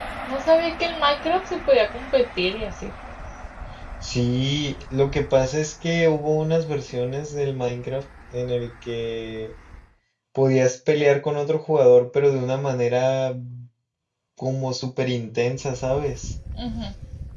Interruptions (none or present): none